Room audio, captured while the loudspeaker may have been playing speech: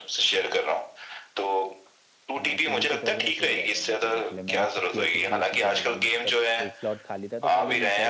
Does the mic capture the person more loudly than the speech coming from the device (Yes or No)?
No